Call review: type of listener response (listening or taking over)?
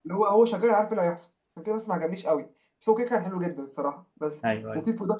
listening